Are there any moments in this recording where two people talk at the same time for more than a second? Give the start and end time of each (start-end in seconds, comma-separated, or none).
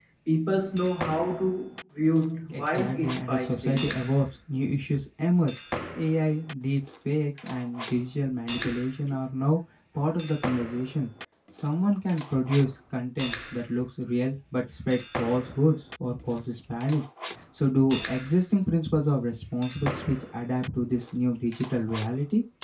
2.5-3.9